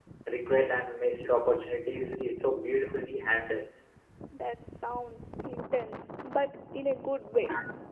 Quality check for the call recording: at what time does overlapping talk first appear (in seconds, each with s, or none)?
none